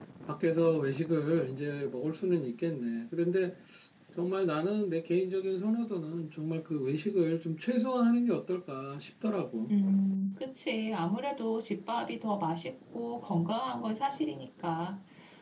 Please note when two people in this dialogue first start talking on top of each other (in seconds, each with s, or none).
none